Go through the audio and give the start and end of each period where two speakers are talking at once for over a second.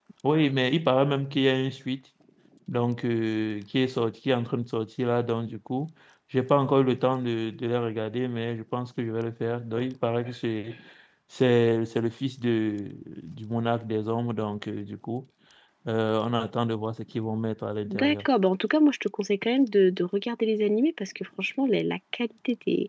none

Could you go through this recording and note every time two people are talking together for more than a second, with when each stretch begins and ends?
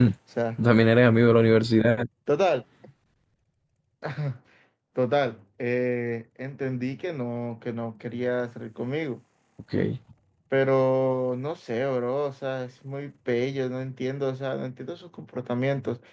none

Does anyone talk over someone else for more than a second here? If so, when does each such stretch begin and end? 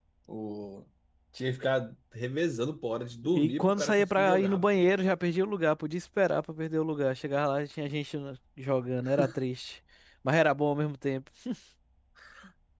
3.3-4.8

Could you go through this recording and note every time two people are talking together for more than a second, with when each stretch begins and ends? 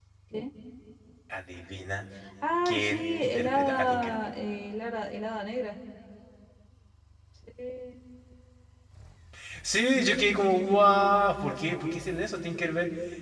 2.6-4.2

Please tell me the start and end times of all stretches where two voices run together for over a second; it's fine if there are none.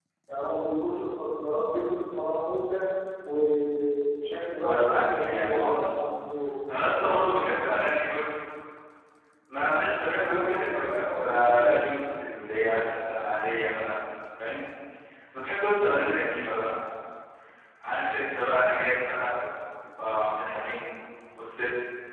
4.6-6.0, 10.2-11.7

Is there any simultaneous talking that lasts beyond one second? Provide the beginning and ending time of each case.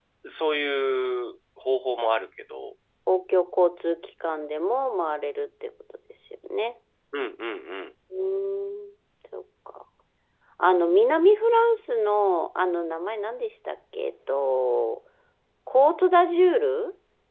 none

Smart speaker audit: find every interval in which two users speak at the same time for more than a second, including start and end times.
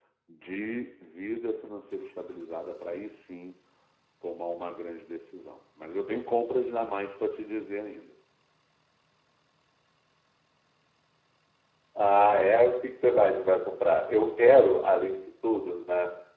none

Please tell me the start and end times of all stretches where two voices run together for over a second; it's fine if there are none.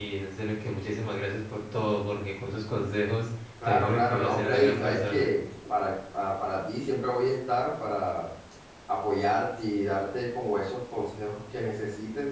3.6-5.3

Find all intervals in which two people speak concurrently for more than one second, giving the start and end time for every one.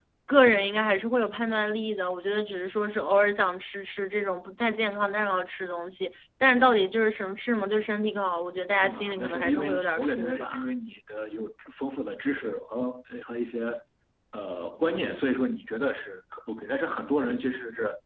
8.8-10.7

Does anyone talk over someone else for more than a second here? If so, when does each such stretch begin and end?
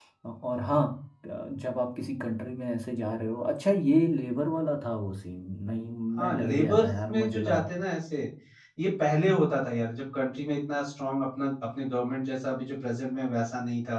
6.2-7.7

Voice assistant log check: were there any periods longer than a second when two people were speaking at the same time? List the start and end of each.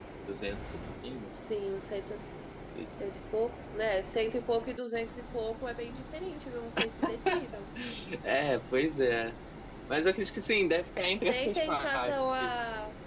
11.2-12.6

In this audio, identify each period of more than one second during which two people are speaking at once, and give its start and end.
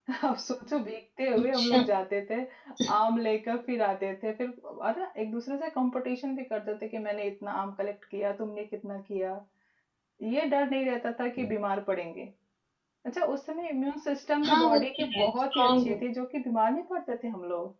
14.4-16.0

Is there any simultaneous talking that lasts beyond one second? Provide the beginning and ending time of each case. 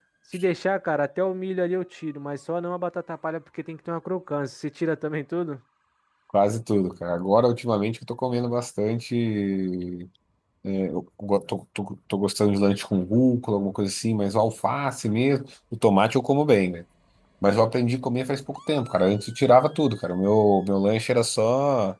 none

